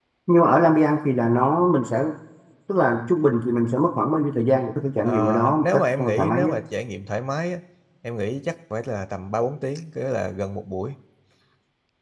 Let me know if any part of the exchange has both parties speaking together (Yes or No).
Yes